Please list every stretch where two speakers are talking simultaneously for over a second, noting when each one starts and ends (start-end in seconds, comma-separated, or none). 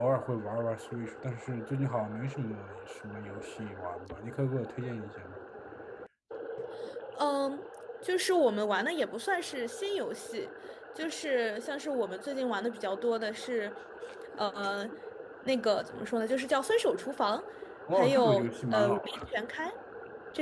17.9-19.2